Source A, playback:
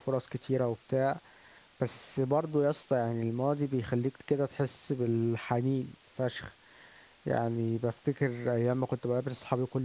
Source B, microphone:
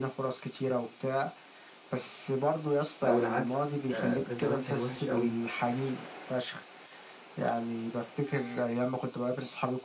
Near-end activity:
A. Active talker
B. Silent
A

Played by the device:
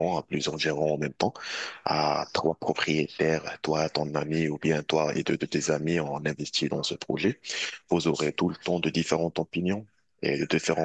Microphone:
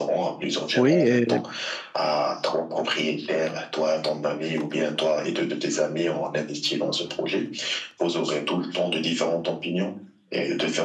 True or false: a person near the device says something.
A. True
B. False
A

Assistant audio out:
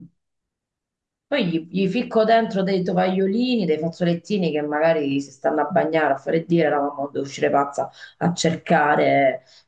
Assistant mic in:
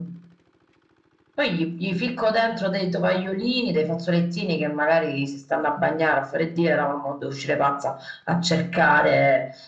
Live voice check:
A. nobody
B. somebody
A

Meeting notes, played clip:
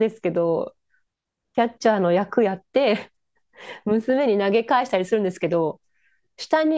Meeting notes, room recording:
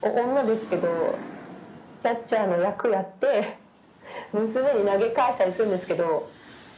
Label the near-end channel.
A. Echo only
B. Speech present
A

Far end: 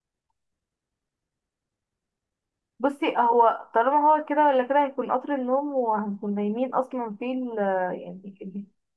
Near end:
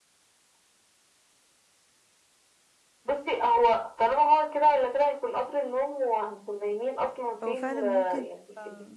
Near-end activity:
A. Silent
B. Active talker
B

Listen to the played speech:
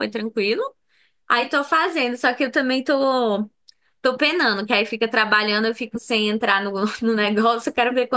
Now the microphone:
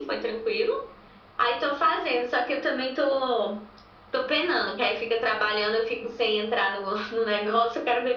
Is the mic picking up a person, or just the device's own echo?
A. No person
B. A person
A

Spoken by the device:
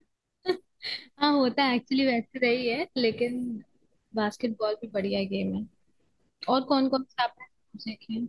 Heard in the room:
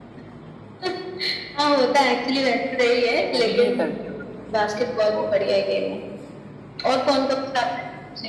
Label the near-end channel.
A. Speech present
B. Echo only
A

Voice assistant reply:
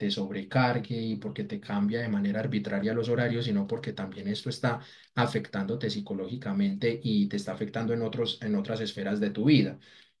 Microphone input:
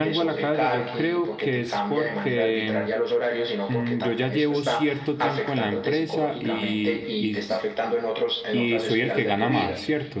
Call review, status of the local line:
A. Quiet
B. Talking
B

